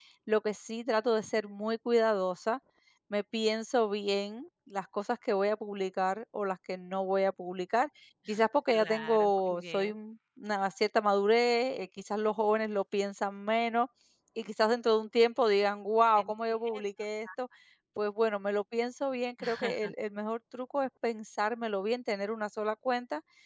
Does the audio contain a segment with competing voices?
Yes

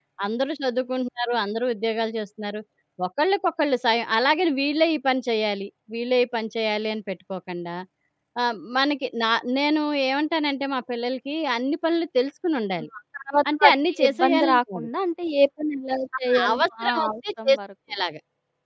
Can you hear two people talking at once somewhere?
Yes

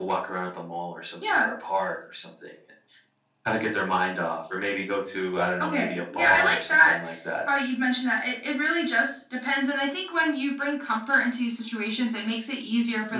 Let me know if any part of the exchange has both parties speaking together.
Yes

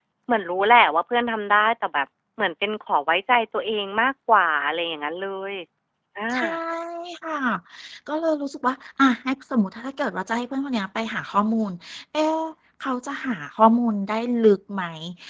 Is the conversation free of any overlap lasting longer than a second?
Yes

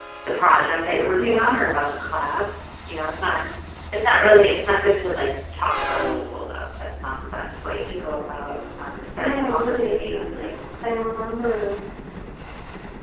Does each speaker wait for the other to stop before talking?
No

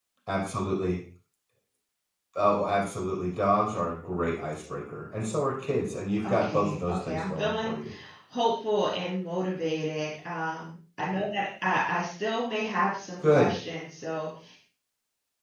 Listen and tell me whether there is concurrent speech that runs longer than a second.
Yes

